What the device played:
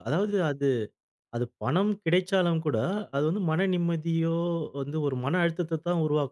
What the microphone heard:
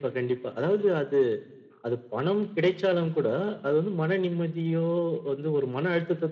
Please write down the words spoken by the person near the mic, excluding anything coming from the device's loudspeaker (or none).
none